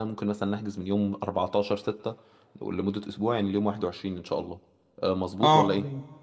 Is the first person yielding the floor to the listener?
Yes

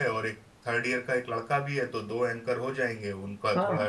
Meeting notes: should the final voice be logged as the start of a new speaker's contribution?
Yes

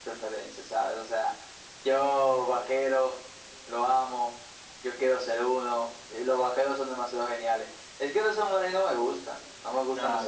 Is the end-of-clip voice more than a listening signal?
Yes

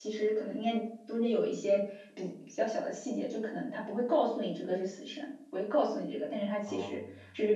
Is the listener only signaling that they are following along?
No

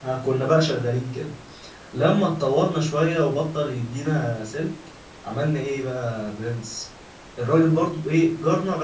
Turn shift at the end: No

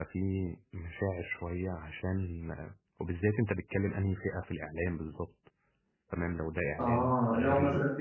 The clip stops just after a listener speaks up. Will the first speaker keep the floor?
No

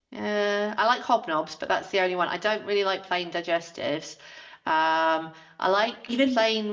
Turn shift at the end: No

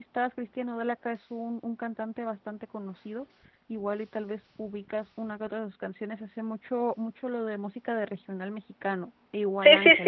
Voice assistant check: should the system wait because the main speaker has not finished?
No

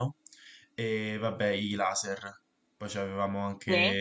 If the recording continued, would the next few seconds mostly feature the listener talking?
No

